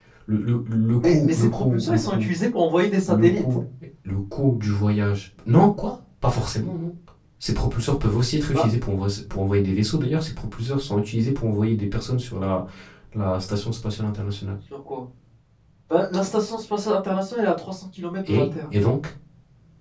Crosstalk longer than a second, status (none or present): present